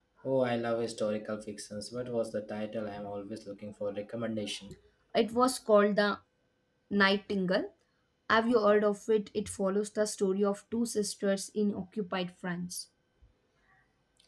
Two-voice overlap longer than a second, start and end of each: none

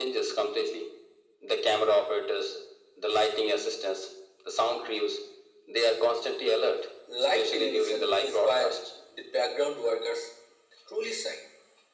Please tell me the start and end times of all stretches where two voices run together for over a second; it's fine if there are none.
7.3-8.8

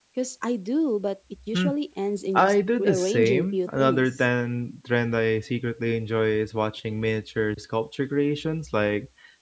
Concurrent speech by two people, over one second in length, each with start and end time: 2.4-4.2

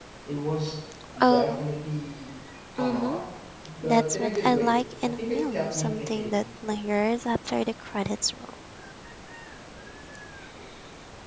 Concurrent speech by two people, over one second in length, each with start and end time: 3.8-6.4

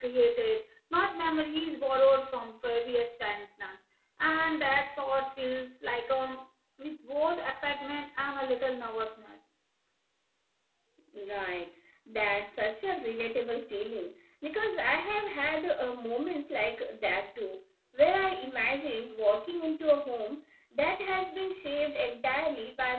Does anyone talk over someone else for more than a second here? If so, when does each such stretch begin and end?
none

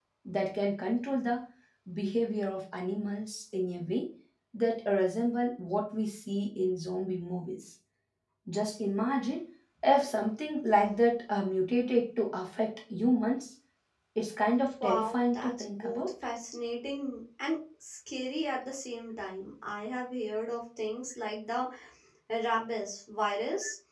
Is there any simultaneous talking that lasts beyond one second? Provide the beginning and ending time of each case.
14.8-16.1

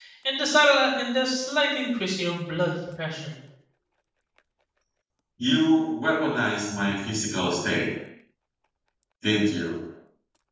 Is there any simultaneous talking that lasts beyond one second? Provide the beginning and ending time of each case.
none

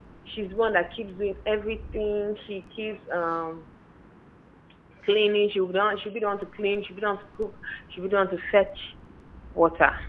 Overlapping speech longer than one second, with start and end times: none

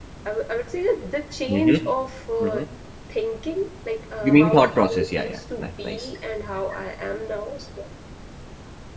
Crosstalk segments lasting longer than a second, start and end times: 4.2-6.1

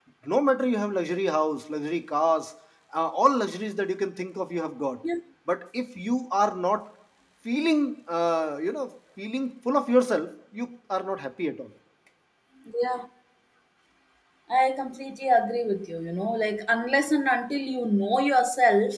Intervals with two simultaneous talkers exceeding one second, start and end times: none

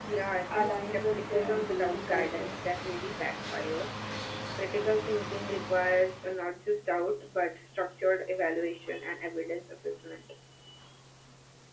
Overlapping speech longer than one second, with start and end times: 0.6-2.5

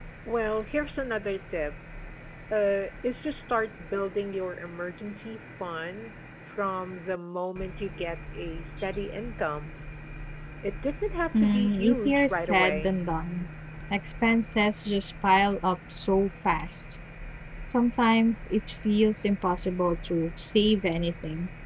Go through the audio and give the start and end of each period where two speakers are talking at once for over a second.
11.4-12.9

